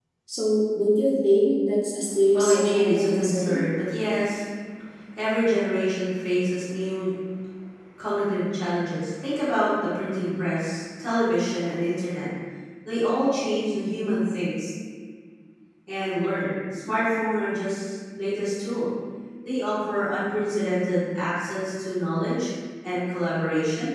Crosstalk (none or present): present